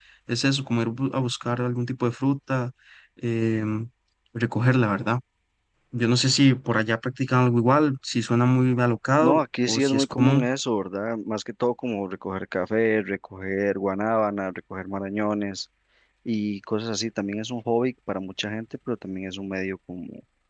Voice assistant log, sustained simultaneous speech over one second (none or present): present